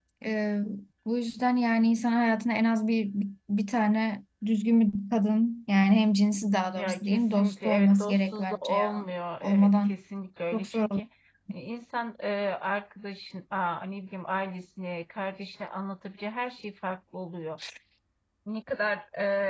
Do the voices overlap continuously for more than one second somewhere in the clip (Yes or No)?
Yes